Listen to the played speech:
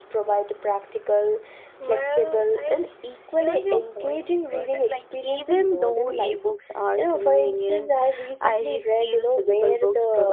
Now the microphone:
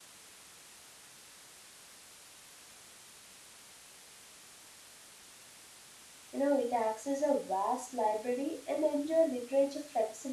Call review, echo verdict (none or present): none